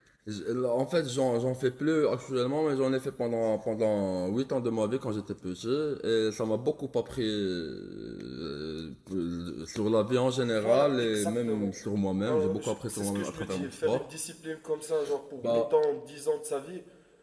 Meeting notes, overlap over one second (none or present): present